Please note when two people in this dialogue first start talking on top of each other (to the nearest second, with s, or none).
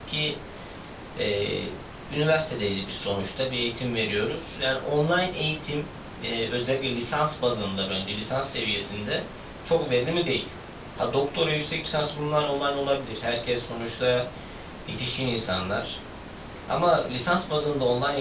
none